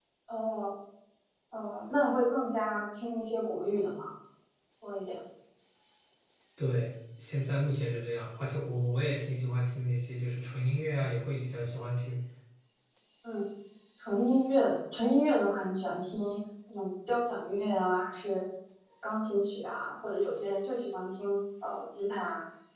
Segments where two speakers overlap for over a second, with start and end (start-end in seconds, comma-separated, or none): none